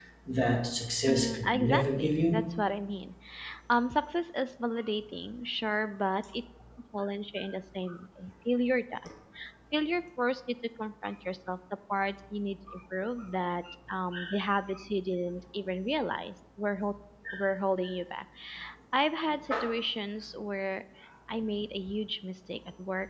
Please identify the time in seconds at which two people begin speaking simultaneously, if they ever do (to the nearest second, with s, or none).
1 s